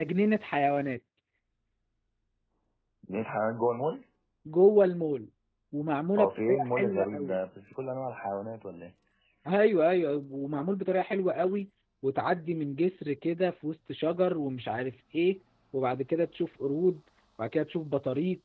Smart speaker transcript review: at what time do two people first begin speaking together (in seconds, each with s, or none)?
6.2 s